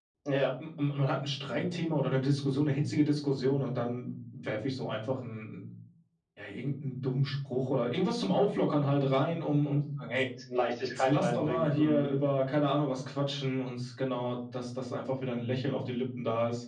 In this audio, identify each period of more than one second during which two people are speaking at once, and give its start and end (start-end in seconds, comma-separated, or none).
10.9-12.1